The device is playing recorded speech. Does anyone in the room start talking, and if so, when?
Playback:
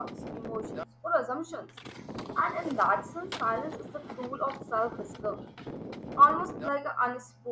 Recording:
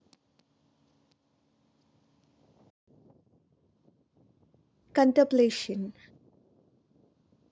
4.9 s

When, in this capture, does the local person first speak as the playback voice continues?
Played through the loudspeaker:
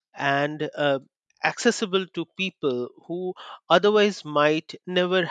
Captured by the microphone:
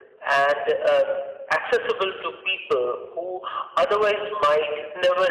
none

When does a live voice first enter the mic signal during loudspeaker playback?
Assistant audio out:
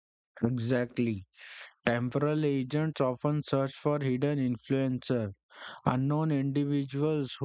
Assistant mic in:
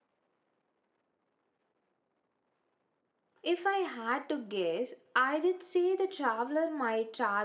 3.4 s

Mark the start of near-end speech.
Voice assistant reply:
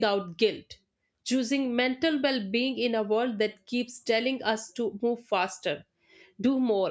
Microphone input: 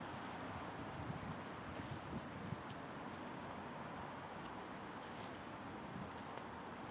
none

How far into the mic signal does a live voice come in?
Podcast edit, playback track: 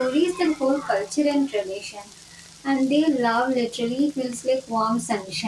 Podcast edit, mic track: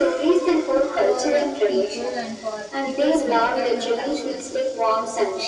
1.0 s

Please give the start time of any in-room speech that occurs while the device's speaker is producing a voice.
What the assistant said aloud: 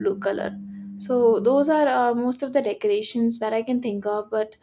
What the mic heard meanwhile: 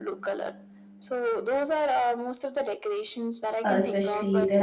3.6 s

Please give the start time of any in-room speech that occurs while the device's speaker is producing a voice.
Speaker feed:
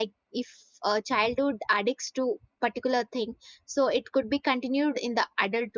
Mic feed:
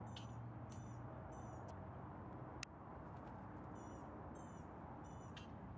none

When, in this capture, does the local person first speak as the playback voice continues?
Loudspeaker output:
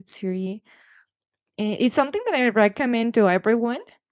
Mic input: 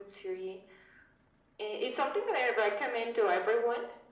none

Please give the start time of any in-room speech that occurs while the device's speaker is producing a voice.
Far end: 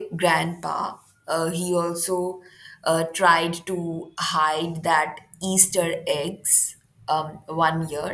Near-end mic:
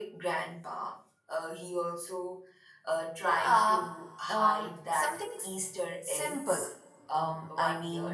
3.2 s

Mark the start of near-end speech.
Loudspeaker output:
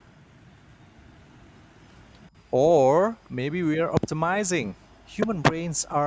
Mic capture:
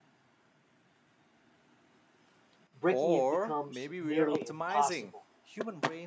2.7 s

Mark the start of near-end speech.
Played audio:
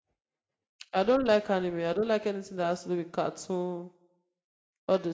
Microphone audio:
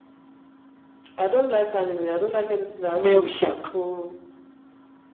3.0 s

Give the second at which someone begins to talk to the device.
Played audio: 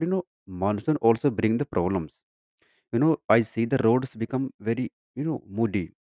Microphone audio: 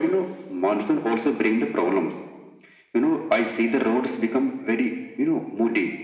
none

